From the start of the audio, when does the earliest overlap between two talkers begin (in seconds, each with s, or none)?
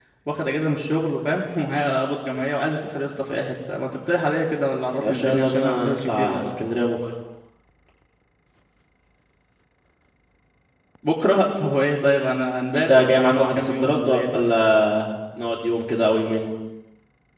5.0 s